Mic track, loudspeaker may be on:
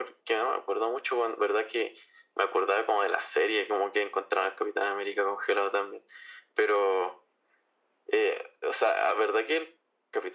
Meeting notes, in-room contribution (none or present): none